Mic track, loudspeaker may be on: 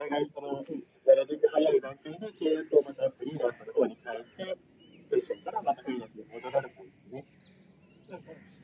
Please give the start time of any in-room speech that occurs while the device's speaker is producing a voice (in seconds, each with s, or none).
none